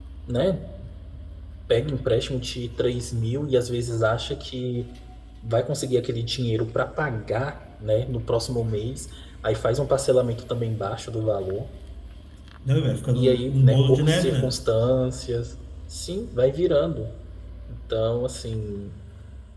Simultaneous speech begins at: 13 s

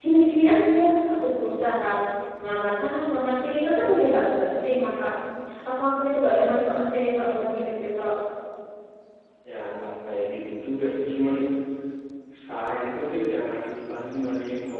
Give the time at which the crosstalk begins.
none

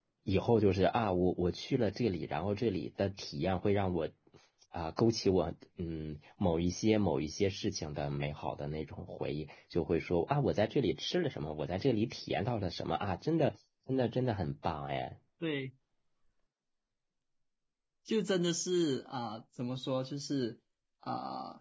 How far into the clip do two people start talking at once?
none

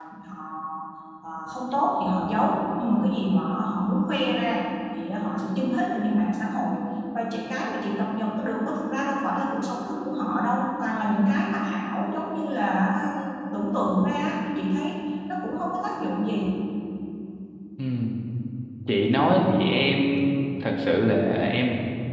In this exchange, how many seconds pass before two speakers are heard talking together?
none

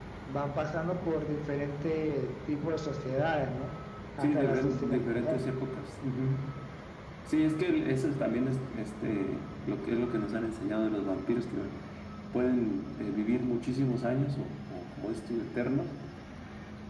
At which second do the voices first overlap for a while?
4 s

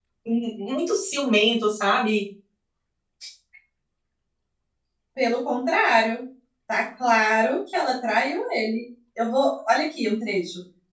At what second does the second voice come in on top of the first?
none

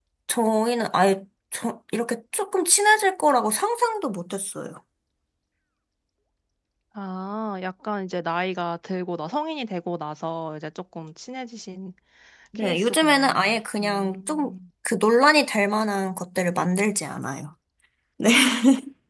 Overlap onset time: 13 s

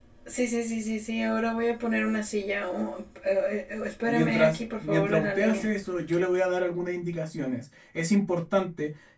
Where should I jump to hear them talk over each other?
4 s

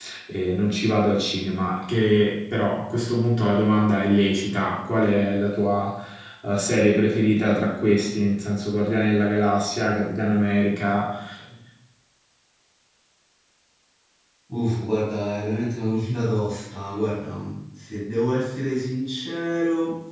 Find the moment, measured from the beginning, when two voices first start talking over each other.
none

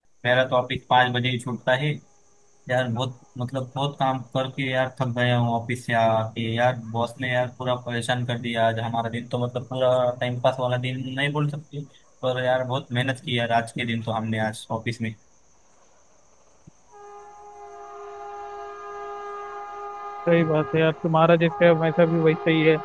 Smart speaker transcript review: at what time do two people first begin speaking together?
none

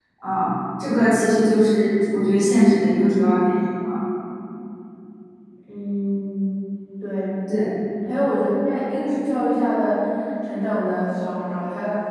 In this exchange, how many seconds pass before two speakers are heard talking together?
none

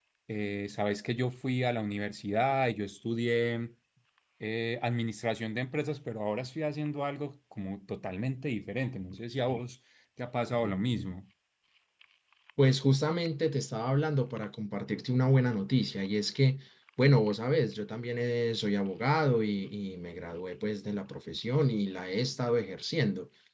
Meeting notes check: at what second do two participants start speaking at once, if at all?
none

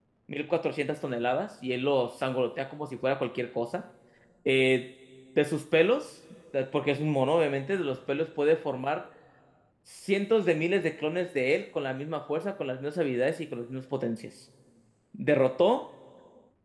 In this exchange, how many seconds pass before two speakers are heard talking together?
none

